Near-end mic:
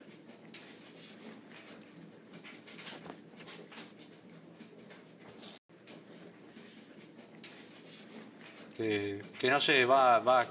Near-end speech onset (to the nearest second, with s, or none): 9 s